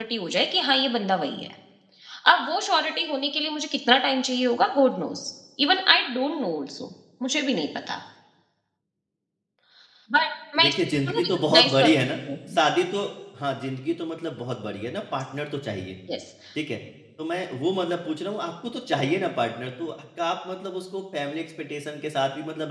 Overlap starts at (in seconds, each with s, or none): 10.6 s